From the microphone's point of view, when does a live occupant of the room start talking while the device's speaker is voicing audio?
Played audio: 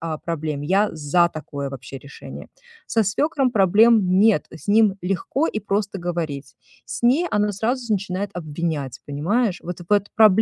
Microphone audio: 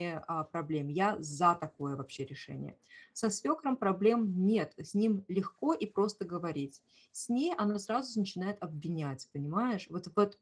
none

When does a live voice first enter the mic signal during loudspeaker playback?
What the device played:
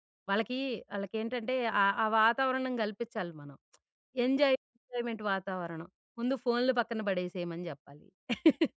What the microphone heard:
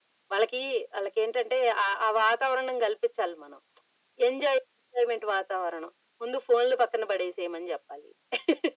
none

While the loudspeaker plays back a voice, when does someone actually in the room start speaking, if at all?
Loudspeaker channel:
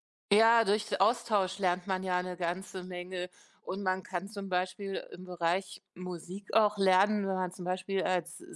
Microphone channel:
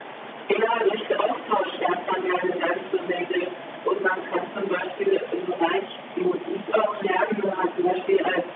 none

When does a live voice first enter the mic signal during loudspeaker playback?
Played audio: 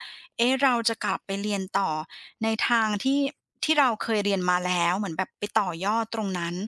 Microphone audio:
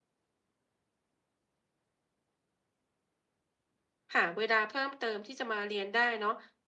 4 s

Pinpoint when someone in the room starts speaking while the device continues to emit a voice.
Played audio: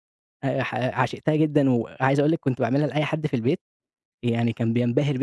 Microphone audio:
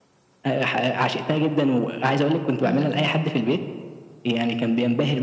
3 s

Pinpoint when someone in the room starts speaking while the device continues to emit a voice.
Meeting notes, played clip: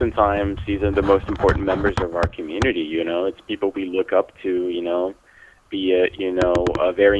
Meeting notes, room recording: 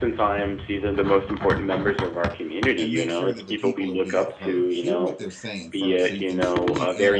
3 s

